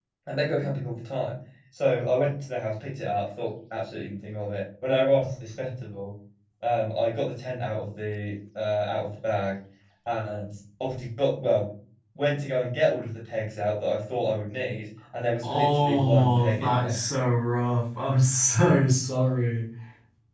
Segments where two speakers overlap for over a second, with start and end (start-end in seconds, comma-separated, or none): 15.4-17.0